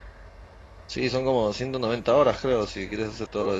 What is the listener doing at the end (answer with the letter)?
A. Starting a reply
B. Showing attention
A